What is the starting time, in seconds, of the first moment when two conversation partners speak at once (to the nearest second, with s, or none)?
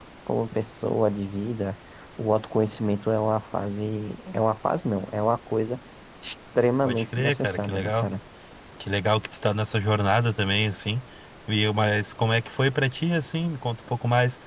7 s